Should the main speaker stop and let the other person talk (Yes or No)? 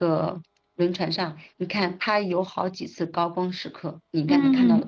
Yes